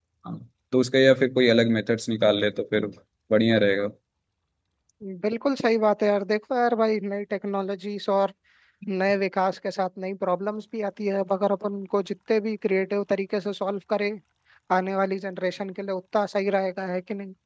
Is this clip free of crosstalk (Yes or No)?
Yes